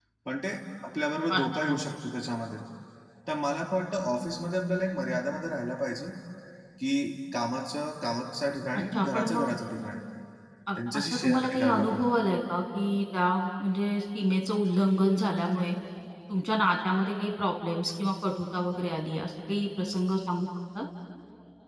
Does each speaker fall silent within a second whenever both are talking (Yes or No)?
No